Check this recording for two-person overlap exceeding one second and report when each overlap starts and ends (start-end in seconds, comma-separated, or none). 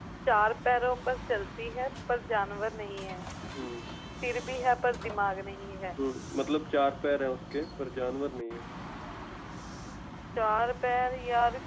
none